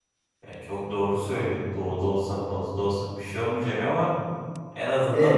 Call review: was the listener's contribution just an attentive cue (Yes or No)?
Yes